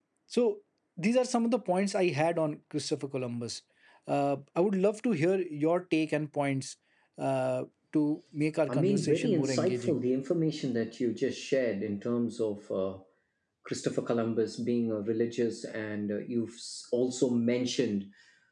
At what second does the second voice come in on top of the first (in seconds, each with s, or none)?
8.7 s